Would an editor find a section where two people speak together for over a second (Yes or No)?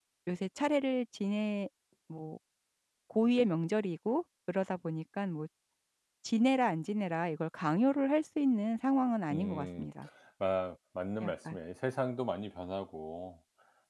No